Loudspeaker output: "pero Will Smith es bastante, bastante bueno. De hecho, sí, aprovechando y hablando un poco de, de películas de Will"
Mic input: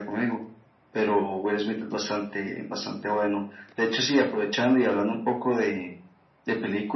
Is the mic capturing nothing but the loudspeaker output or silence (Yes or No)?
Yes